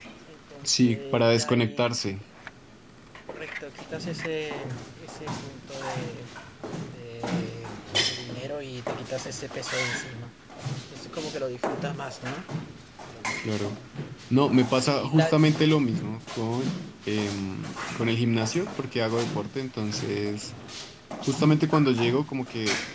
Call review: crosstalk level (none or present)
present